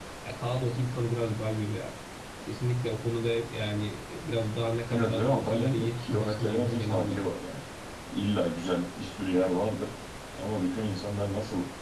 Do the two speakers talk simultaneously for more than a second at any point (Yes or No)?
Yes